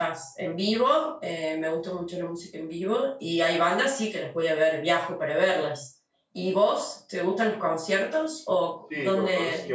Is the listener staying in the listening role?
No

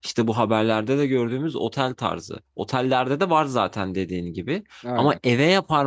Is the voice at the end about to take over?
No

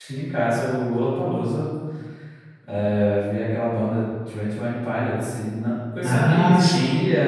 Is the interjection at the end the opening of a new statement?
No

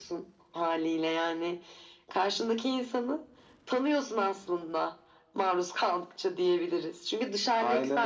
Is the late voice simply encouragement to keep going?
Yes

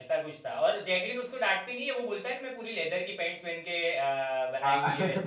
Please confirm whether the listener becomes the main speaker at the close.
No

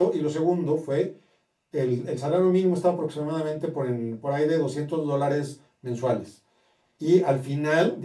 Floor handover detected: No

